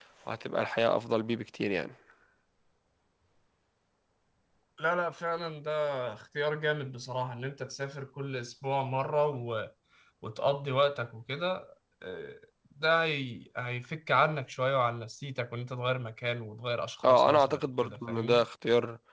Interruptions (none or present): present